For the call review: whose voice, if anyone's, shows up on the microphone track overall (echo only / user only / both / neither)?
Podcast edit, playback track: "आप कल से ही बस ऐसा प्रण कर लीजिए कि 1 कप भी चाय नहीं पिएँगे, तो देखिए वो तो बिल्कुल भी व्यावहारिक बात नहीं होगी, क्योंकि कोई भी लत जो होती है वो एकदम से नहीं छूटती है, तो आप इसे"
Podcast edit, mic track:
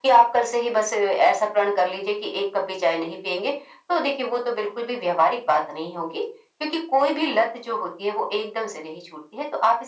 echo only